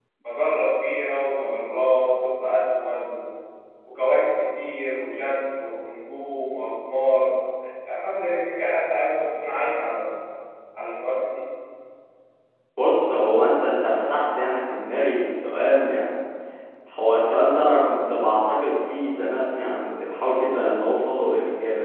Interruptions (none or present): none